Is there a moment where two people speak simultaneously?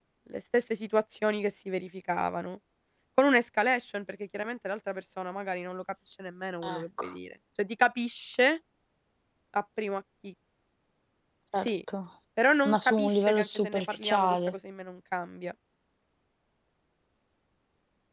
Yes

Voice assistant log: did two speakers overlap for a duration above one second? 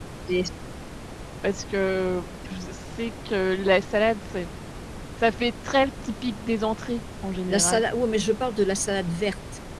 No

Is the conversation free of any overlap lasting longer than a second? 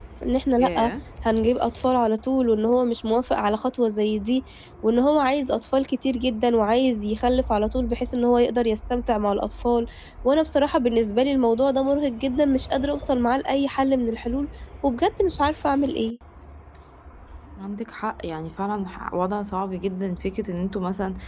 Yes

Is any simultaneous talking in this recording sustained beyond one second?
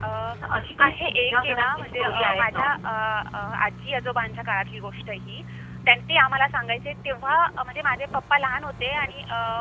Yes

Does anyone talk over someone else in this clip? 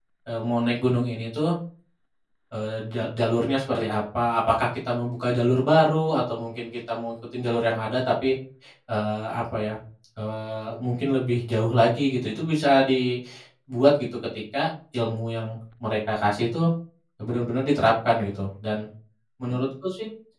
No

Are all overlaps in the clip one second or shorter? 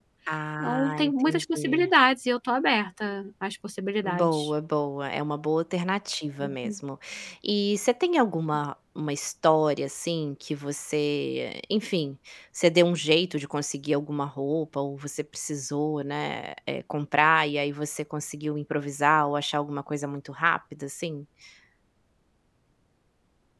No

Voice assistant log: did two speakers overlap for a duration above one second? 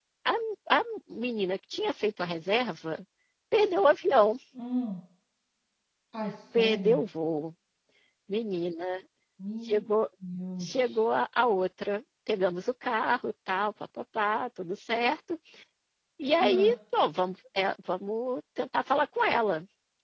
No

